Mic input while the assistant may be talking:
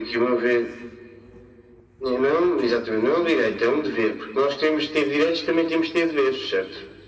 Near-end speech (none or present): none